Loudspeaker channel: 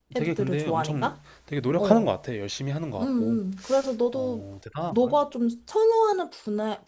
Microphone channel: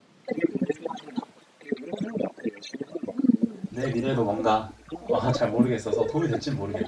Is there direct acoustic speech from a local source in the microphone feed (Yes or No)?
Yes